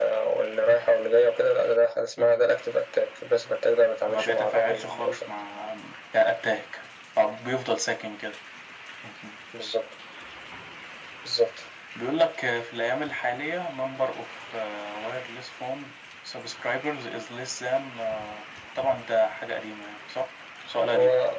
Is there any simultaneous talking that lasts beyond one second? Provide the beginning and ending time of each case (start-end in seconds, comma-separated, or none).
4.1-5.3